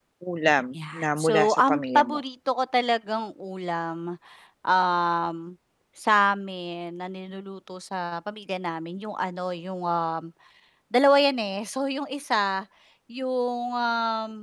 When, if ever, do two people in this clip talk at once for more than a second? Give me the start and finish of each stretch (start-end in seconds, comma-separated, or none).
0.7-2.2